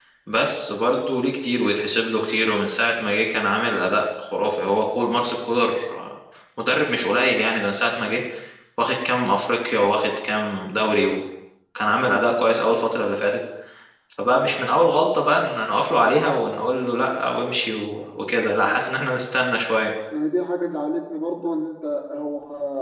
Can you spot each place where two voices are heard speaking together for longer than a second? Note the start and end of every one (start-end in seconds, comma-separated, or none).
none